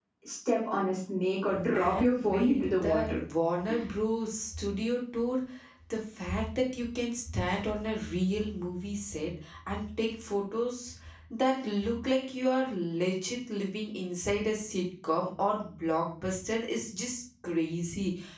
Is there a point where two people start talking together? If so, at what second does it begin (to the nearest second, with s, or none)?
2 s